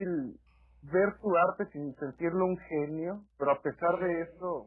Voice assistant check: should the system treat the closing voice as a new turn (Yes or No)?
No